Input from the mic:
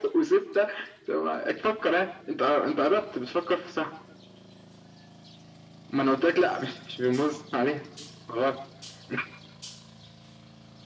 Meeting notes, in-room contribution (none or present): none